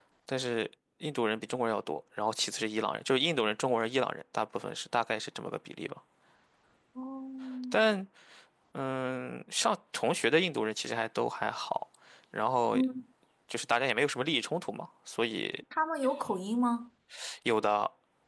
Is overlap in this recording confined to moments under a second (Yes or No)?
Yes